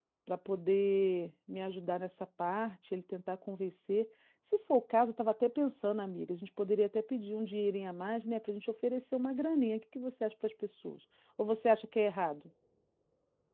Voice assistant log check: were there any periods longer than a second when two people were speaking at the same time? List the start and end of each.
none

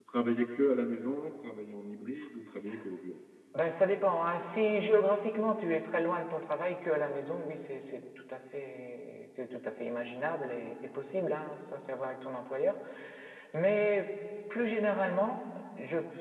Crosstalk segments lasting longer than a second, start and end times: none

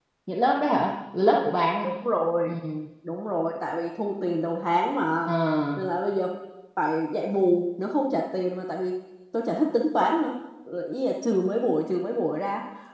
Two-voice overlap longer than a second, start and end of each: none

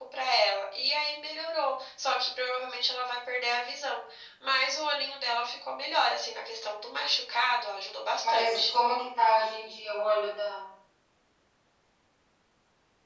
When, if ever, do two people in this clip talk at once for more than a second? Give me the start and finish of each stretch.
none

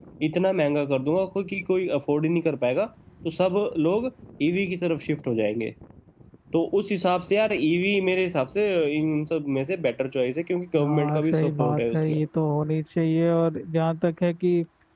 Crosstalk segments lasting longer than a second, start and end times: 10.8-12.2

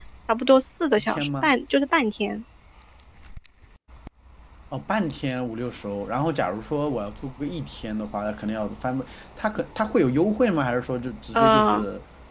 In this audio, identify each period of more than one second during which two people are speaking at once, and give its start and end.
none

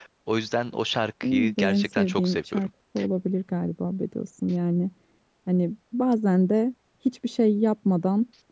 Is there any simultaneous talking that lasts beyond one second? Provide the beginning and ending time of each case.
1.2-2.7

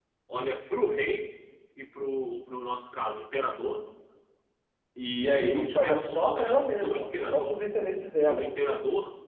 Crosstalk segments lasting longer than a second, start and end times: 5.2-7.6

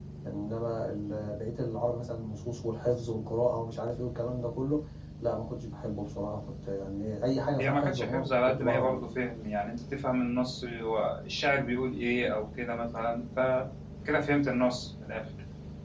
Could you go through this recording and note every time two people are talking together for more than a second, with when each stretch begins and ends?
7.6-9.1

